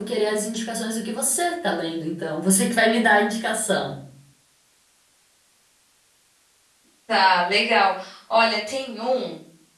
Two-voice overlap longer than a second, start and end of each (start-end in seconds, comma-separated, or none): none